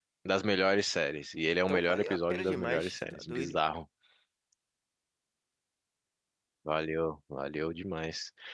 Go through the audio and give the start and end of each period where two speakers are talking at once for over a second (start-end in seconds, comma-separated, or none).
1.7-3.6